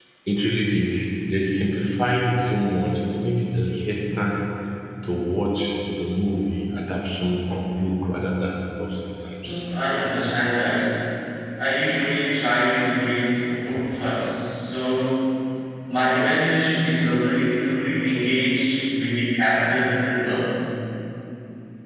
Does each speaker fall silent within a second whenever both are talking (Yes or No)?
Yes